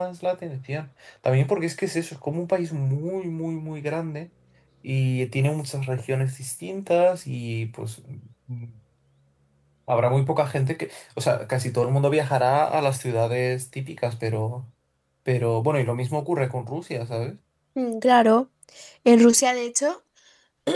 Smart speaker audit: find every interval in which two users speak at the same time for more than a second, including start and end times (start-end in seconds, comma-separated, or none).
none